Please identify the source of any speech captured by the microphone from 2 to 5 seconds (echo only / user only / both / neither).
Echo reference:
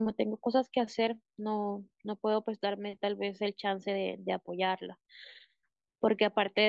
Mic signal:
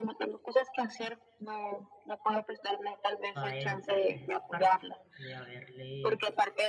both